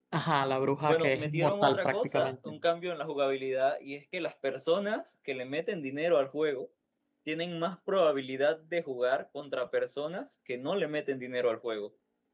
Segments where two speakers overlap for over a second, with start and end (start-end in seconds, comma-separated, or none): 0.8-2.5